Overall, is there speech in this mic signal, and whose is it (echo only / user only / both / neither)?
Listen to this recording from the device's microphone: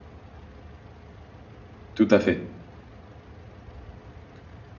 user only